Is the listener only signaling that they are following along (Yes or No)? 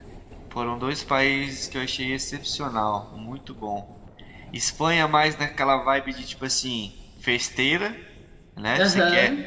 Yes